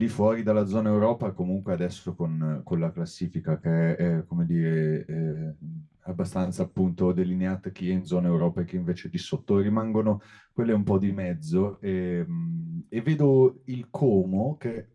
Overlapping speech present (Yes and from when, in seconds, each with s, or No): No